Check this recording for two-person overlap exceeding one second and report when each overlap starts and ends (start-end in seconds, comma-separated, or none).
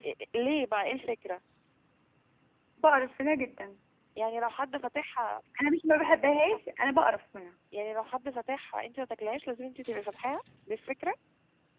none